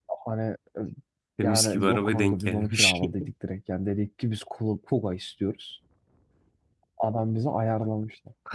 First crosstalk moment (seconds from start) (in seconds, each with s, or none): 1.4 s